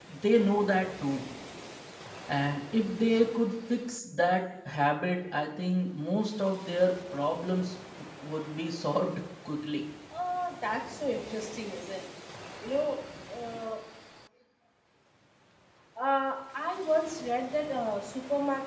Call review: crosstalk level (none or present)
none